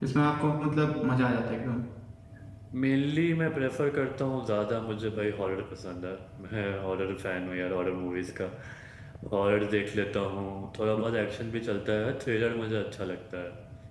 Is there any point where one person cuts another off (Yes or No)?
No